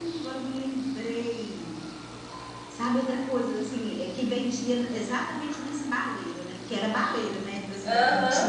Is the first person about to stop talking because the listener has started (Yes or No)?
Yes